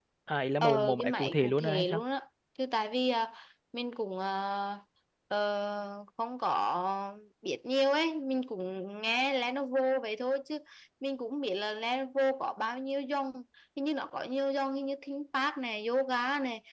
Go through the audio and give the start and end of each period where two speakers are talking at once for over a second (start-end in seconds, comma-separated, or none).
0.6-2.0